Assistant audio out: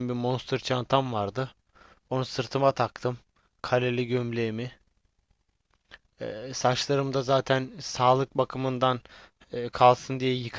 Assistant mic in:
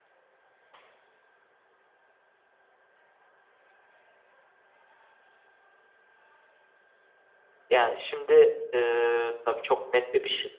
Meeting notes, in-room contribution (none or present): present